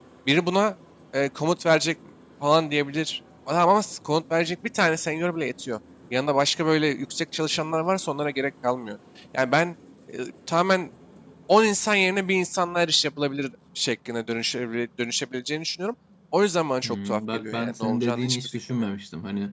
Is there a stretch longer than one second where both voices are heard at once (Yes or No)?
Yes